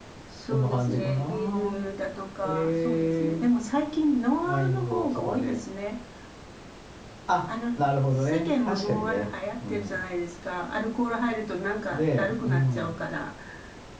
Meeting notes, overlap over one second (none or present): present